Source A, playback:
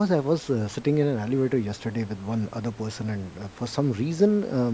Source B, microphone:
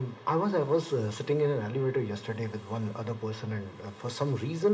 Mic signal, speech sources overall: echo only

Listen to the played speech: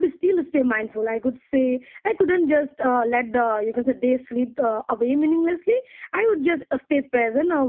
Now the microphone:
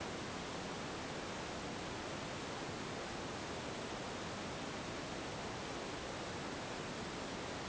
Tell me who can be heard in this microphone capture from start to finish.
neither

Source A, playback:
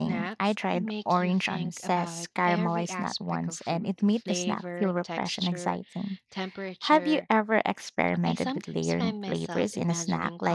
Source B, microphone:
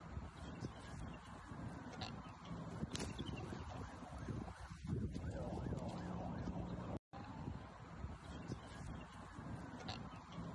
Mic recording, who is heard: neither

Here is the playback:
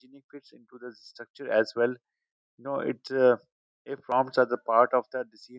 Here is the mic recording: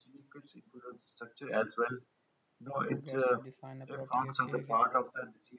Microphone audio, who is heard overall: both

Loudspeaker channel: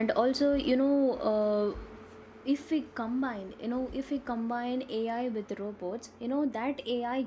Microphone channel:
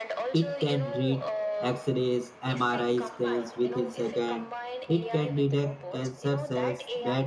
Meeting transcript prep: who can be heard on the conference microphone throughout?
both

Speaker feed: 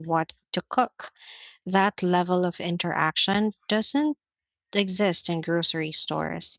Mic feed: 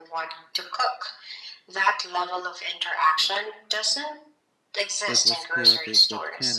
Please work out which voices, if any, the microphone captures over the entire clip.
both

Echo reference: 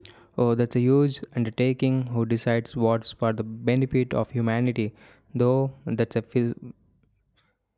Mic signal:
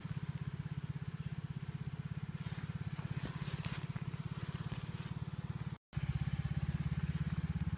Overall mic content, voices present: neither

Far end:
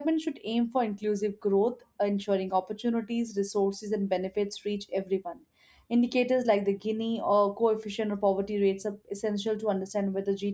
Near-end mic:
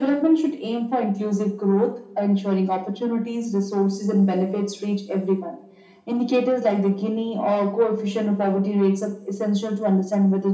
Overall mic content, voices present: echo only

